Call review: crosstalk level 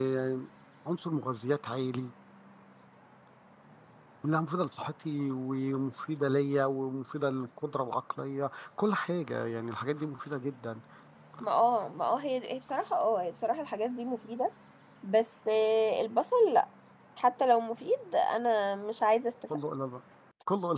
none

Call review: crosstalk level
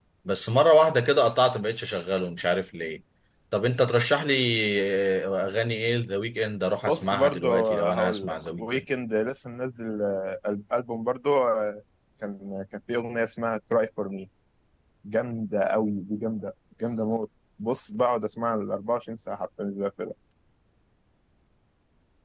present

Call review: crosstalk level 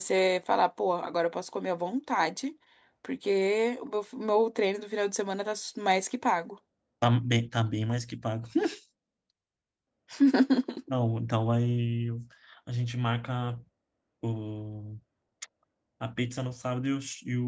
none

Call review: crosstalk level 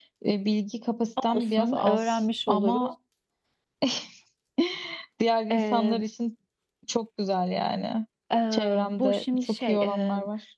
present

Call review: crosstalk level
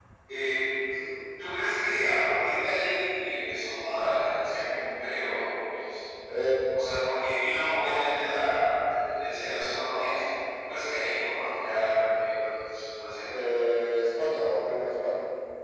none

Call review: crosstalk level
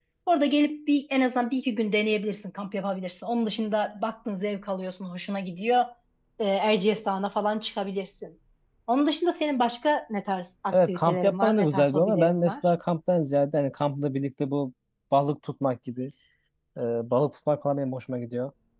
present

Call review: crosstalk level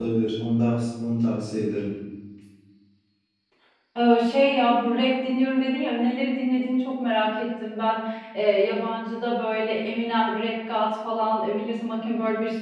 none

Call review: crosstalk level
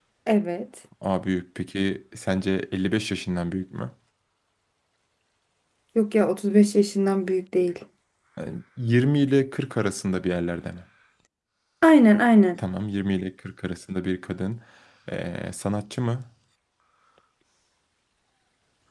none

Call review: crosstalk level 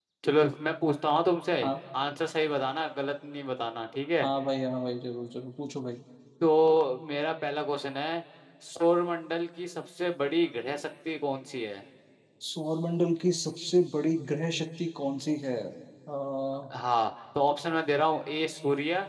none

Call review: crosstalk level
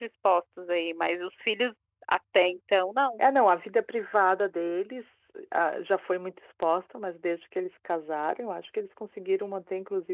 none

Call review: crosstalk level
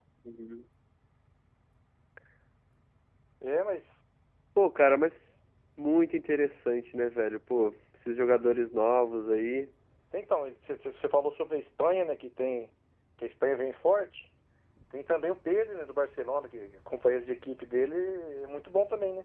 none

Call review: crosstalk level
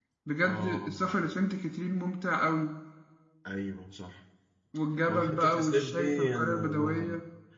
present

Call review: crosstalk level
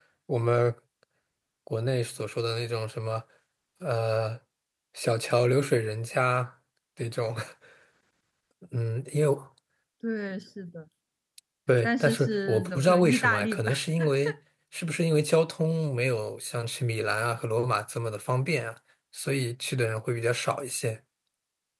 present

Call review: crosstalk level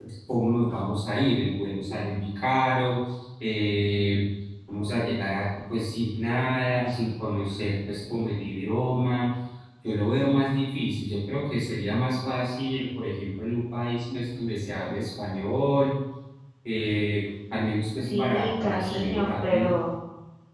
present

